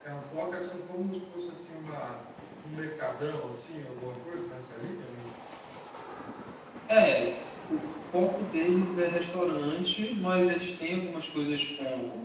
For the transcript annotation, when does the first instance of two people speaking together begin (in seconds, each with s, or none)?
none